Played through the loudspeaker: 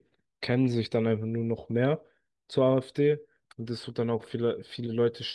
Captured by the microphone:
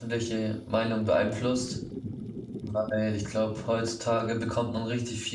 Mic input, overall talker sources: user only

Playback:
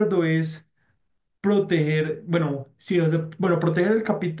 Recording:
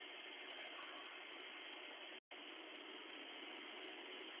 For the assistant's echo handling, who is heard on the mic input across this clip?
neither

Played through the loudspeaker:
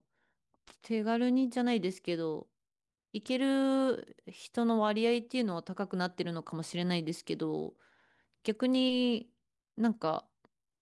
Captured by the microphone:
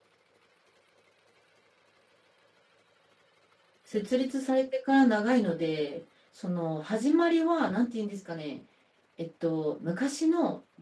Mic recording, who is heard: user only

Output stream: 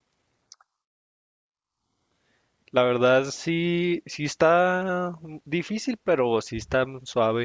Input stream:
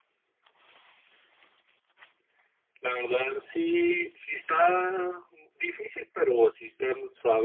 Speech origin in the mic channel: both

